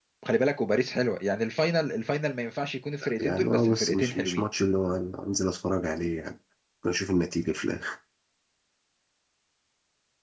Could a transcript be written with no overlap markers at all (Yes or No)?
No